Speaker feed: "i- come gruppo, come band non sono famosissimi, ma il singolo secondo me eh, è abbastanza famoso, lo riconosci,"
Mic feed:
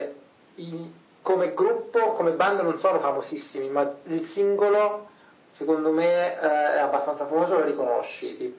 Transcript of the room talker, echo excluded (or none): none